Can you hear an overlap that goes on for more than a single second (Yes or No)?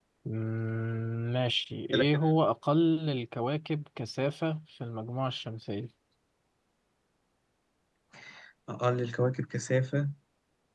No